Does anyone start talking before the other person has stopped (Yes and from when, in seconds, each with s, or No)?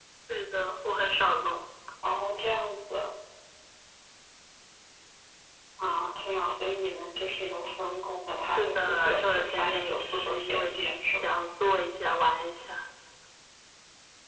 Yes, from 8.6 s